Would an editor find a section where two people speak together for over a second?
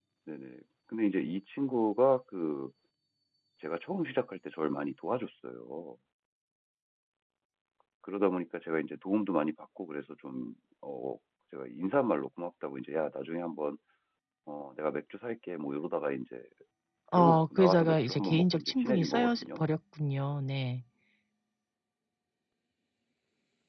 Yes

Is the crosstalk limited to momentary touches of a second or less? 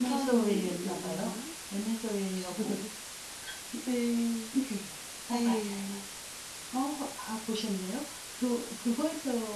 No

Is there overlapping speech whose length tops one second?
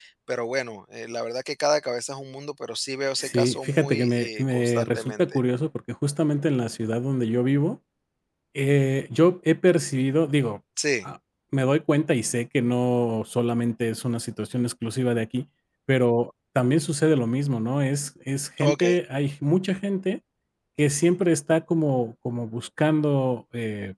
Yes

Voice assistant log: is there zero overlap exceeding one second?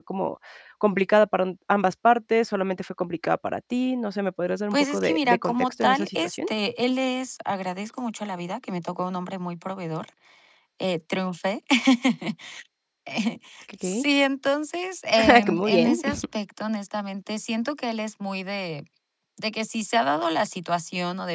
No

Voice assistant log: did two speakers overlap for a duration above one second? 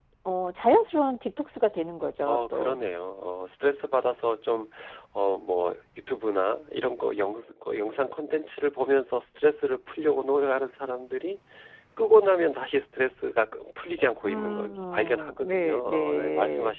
Yes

